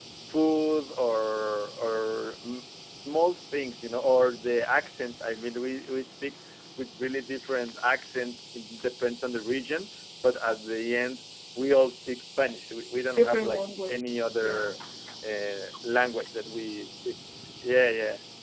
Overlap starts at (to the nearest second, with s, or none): 13 s